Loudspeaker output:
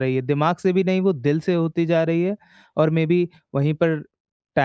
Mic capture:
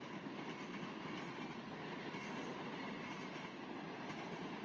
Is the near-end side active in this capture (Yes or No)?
No